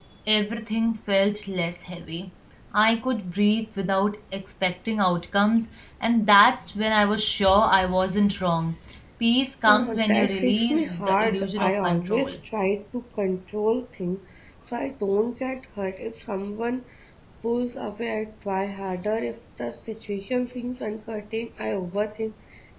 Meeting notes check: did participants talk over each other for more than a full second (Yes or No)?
Yes